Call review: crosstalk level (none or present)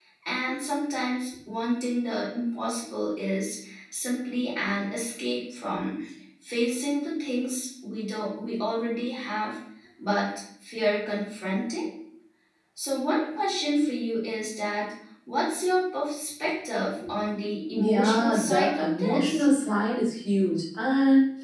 present